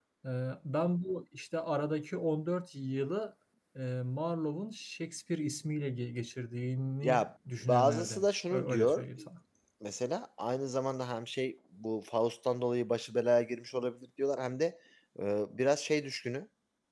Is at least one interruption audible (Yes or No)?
Yes